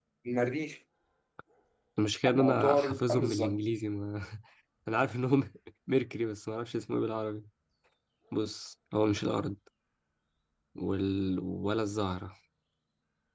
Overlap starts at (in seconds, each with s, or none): 2.3 s